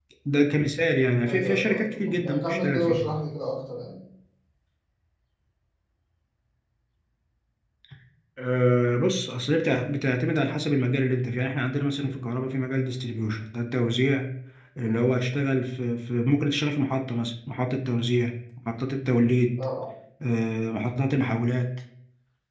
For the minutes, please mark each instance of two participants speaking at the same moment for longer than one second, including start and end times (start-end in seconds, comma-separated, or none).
1.3-3.1